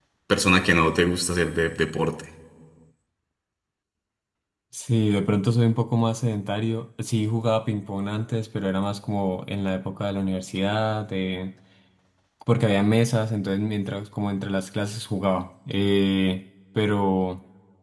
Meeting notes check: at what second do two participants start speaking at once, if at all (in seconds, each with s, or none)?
none